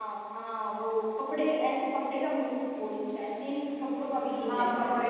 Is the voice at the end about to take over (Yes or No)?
Yes